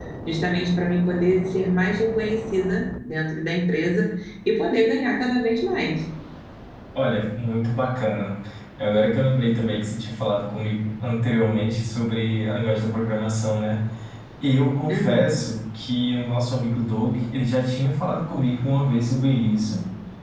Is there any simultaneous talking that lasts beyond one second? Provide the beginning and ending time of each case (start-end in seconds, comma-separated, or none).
none